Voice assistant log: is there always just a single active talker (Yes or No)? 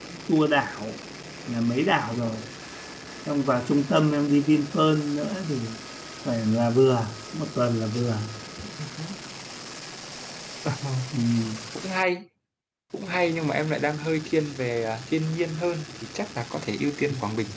Yes